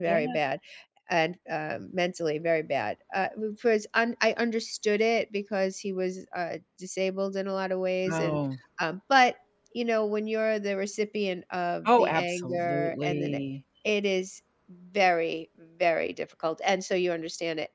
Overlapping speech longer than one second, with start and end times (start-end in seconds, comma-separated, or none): 11.8-13.4